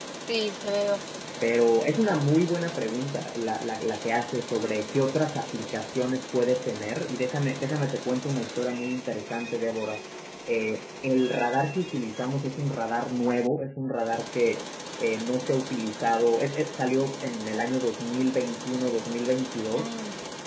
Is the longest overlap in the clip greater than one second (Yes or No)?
No